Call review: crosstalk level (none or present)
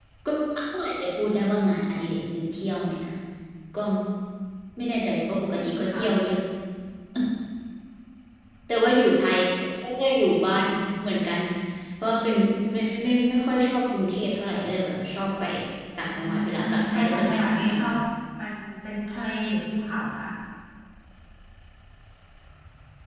present